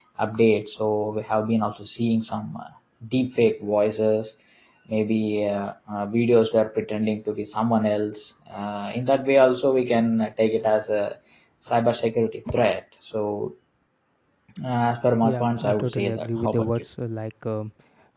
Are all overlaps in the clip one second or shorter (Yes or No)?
No